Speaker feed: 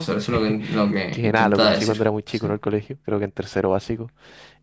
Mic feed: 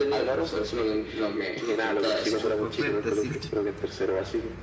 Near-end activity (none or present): present